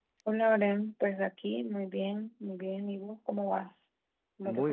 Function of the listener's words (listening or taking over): taking over